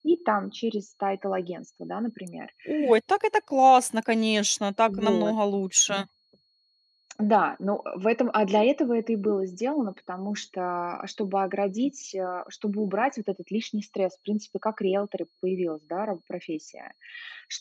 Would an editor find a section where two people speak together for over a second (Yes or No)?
No